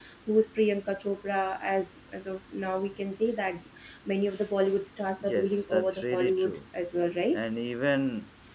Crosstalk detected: Yes, from 5.2 s

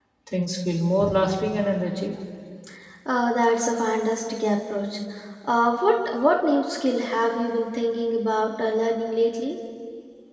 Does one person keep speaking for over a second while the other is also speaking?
No

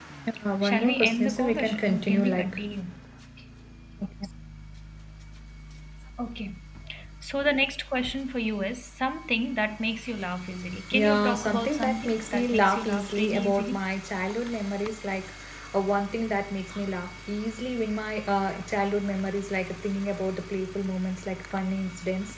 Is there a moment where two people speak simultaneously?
Yes, from 0.6 s

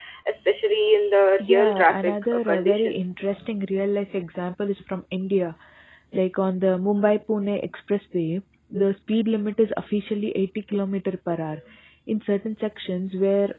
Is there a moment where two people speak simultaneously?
Yes, from 1.4 s

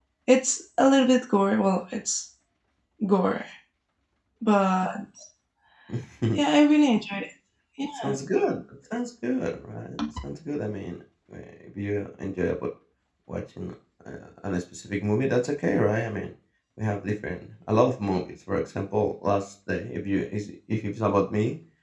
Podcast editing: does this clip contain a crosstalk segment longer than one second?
No

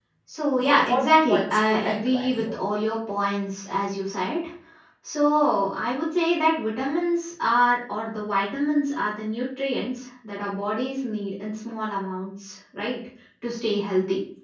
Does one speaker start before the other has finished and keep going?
Yes, from 0.6 s

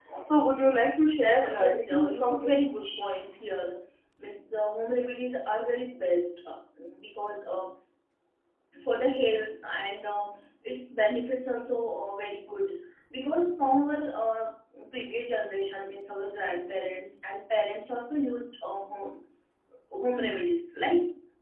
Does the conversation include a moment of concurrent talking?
Yes, from 1.4 s

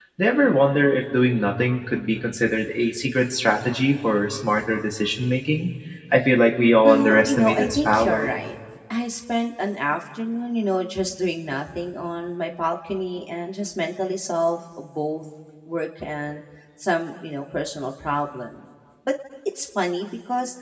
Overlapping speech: Yes, from 6.8 s

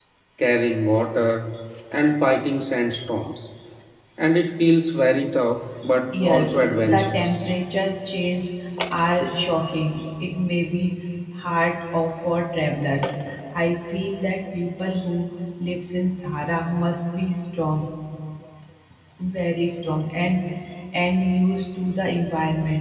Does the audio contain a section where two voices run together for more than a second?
Yes, from 6.1 s

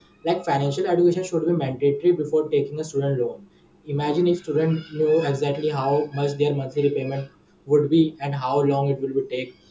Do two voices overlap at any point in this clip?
No

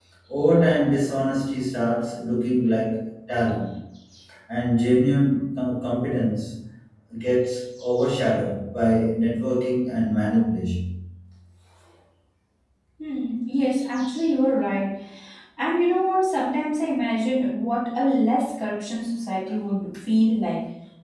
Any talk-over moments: No

